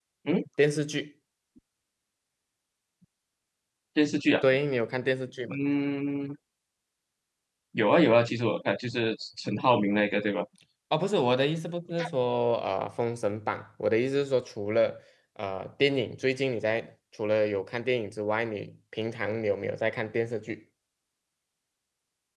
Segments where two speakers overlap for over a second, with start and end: none

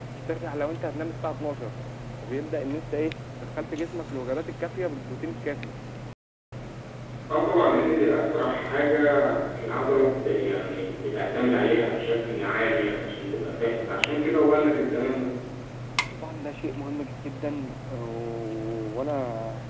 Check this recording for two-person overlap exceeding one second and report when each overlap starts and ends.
none

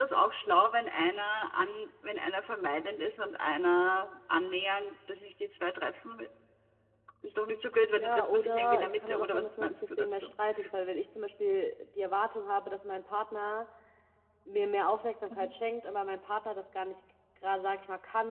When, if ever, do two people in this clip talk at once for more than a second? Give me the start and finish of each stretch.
7.9-10.3

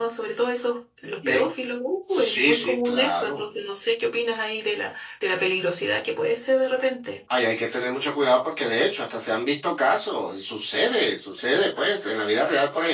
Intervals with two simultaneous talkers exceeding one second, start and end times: 2.1-3.4

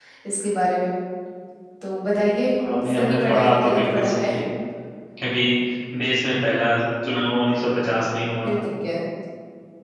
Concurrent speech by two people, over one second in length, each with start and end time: 2.9-4.3

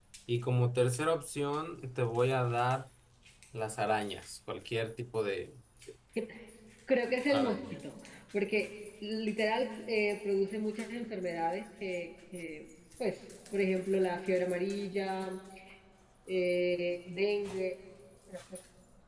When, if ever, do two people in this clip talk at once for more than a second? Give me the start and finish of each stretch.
none

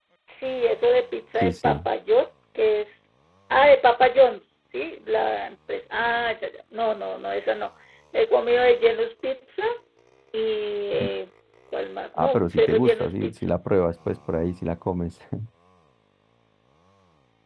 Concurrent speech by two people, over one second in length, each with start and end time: 12.2-13.5

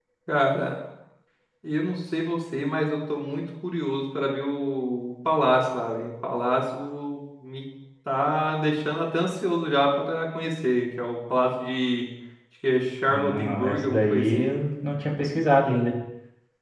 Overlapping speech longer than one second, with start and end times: 13.1-14.5

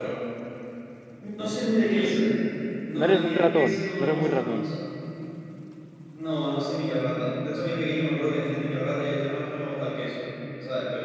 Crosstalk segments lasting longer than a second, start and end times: 2.9-4.7

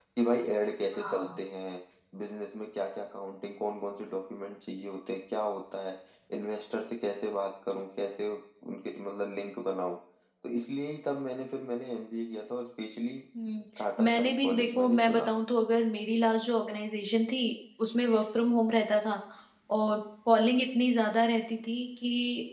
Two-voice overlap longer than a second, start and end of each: 14.0-15.3

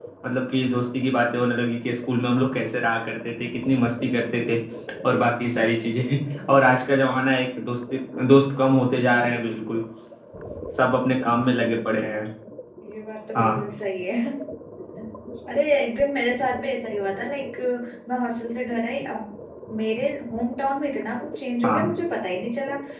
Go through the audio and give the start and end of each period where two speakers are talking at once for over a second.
none

